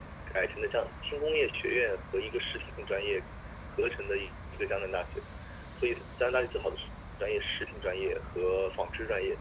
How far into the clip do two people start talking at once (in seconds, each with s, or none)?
none